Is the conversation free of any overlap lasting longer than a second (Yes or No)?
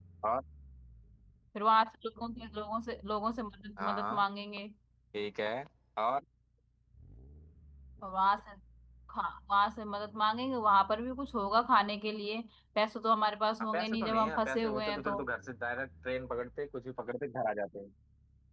No